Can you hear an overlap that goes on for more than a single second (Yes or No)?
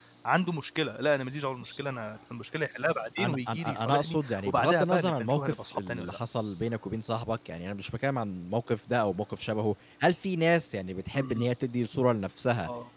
Yes